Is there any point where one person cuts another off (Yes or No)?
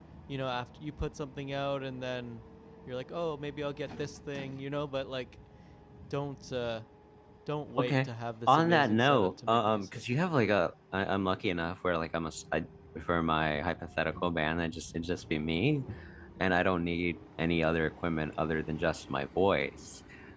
Yes